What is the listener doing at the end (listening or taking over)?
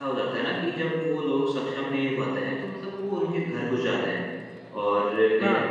listening